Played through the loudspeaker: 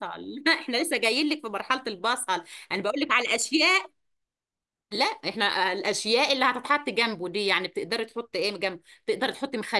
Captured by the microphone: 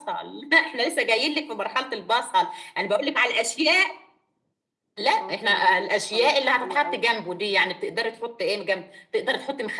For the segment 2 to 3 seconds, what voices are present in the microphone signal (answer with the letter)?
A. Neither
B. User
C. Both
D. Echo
D